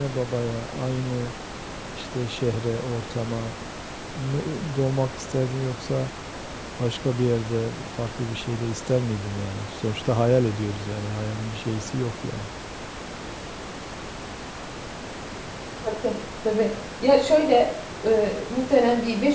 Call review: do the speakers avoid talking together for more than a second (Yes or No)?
Yes